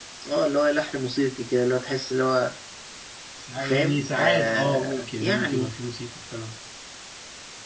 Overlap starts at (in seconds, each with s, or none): 3.6 s